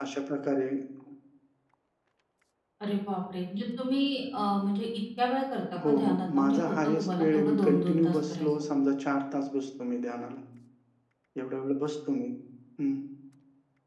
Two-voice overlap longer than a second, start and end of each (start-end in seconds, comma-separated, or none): 5.8-8.5